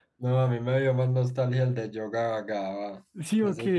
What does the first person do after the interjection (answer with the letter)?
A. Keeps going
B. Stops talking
A